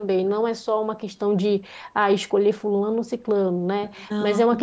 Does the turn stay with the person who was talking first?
Yes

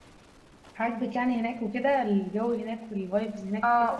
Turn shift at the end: Yes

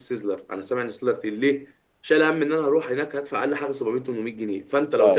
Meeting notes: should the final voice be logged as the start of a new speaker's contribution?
No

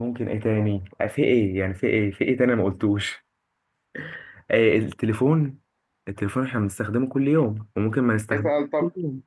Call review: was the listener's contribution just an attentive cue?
No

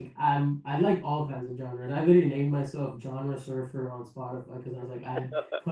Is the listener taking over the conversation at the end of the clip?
No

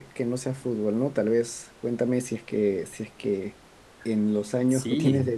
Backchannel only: Yes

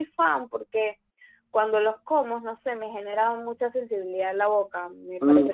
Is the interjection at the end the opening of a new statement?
Yes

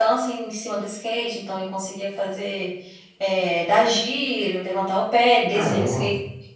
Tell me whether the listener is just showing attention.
Yes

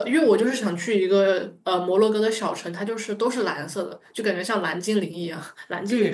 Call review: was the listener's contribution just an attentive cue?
No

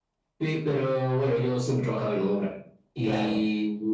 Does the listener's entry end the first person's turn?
No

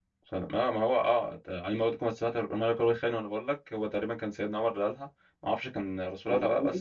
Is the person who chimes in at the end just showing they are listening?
Yes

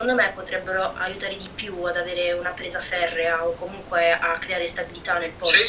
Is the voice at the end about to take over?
Yes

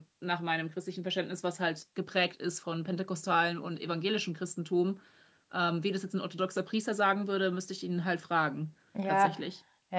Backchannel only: No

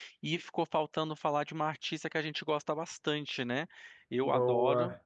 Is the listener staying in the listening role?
Yes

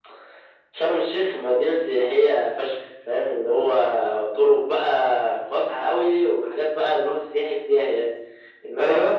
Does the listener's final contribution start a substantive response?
No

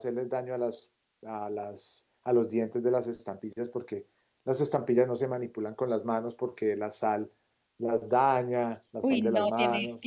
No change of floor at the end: No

